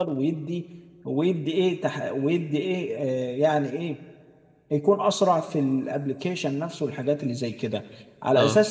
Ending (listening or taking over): listening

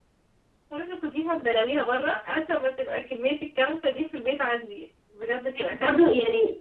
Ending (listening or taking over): taking over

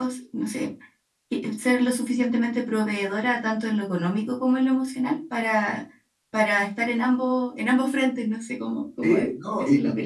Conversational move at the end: taking over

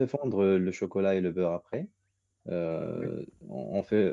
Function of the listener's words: listening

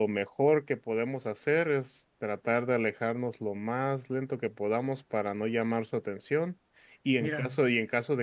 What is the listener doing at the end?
listening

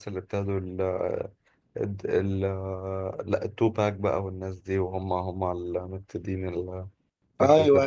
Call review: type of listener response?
taking over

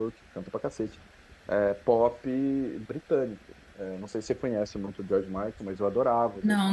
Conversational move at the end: taking over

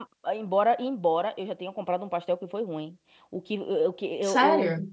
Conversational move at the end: listening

